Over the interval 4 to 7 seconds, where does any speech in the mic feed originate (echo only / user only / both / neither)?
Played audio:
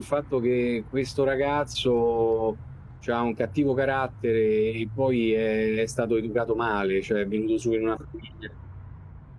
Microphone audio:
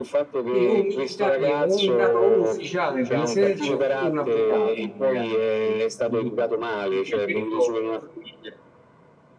both